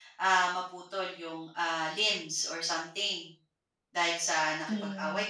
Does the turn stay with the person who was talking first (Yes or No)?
Yes